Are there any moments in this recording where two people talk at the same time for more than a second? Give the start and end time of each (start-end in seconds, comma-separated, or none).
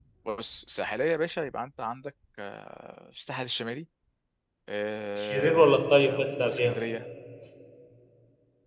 5.2-6.8